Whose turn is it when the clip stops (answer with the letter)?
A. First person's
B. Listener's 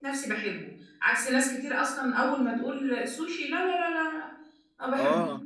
B